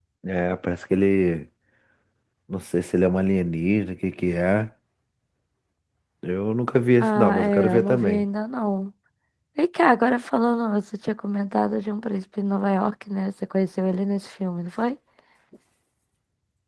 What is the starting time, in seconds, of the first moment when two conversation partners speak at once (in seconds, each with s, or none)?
7.0 s